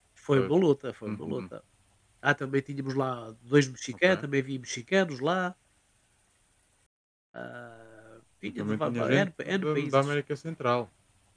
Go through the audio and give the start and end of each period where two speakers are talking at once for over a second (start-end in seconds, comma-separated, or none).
8.6-9.9